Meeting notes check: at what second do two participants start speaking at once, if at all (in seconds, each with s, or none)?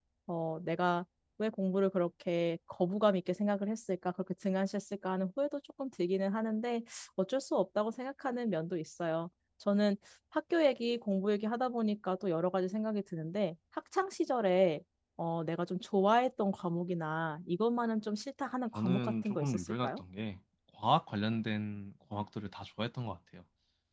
18.8 s